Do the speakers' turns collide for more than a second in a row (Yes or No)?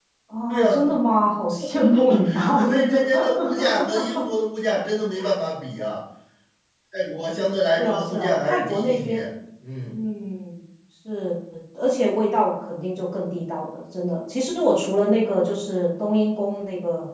Yes